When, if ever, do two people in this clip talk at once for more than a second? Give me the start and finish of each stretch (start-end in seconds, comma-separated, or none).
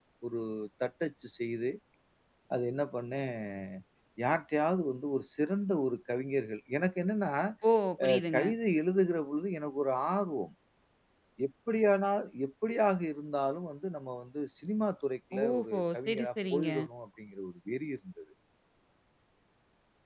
15.4-16.7